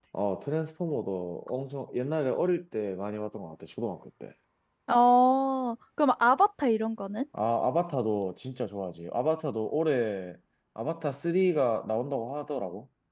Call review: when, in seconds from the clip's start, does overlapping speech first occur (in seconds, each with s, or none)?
none